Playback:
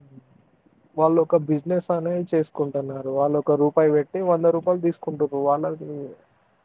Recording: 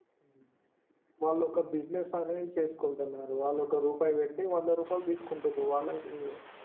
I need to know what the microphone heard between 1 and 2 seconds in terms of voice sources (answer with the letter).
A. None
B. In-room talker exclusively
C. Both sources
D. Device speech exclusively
D